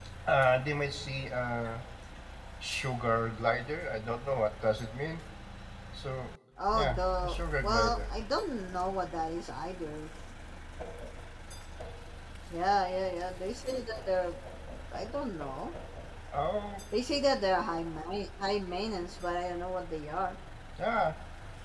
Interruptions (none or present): present